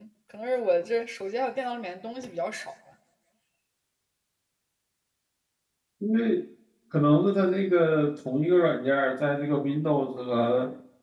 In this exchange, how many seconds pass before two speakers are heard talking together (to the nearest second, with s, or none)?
none